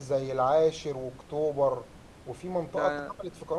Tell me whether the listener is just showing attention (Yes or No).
Yes